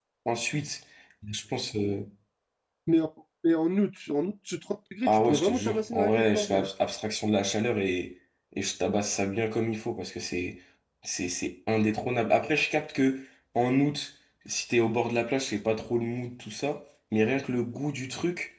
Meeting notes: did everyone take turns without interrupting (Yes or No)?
No